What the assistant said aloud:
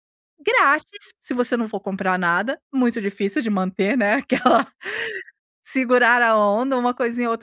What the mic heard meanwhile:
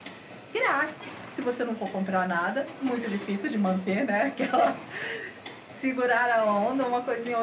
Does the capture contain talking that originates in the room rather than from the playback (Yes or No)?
No